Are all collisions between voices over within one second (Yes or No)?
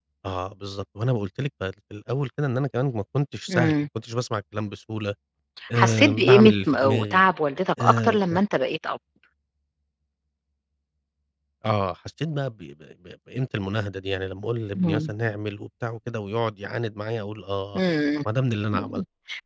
No